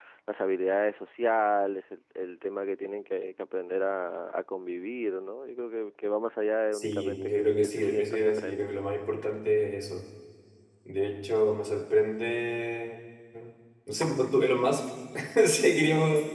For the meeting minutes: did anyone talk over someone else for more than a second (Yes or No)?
Yes